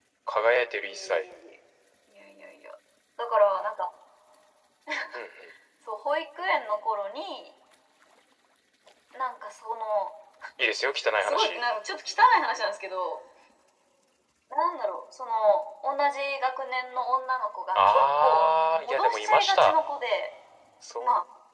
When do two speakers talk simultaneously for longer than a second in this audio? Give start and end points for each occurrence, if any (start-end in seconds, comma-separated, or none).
17.8-19.8